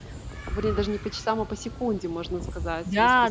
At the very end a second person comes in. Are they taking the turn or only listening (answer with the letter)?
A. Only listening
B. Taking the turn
B